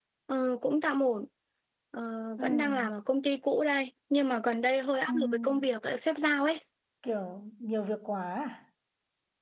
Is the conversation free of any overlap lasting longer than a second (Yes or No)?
Yes